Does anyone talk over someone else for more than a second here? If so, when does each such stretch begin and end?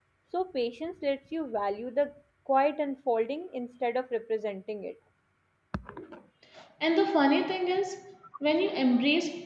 none

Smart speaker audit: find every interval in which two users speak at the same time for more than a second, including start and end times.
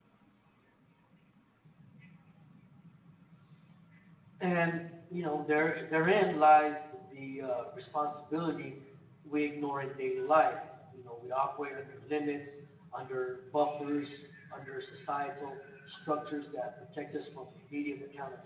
none

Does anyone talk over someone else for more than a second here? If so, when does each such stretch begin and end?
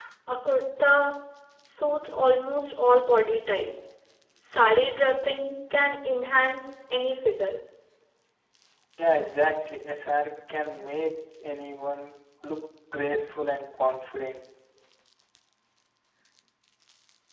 none

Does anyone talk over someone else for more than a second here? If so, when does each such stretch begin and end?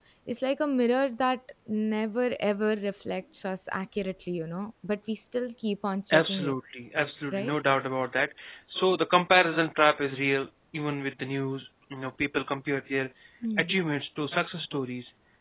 none

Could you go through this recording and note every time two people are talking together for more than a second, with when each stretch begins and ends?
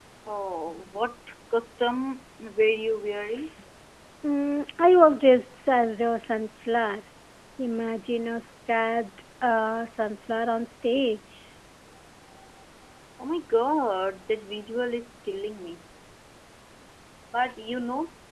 none

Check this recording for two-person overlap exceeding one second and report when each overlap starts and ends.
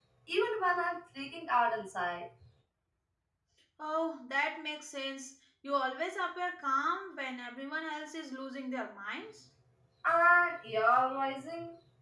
none

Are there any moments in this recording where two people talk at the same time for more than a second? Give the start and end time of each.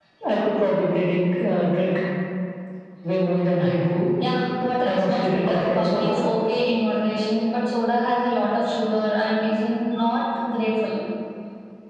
4.8-6.2

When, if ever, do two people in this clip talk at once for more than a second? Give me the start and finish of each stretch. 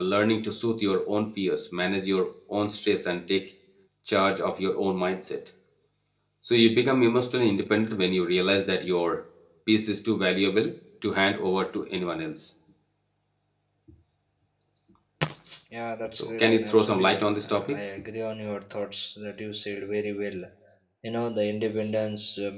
16.2-17.8

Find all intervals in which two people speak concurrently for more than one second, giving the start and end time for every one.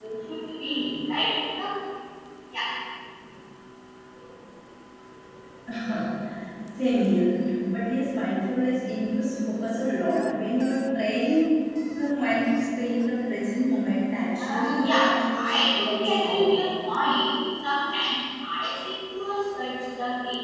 14.4-16.6

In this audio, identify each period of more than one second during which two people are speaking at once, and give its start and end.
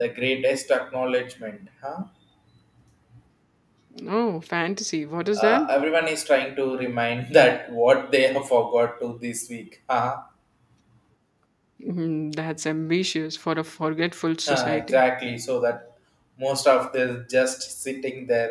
none

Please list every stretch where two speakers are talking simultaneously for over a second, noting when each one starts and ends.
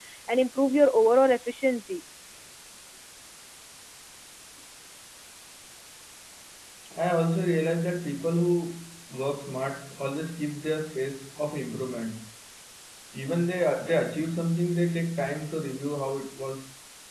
none

